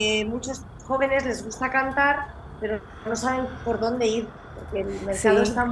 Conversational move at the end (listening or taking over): listening